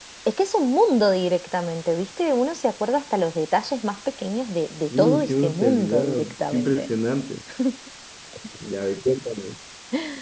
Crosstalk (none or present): present